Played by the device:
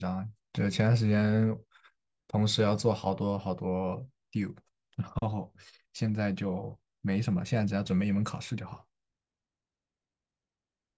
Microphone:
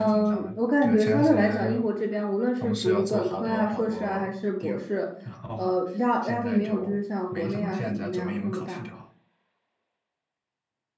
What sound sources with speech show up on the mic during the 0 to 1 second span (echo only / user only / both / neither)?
both